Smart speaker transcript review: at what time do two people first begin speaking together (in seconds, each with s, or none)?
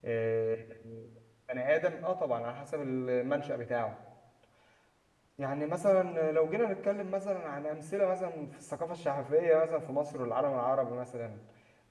none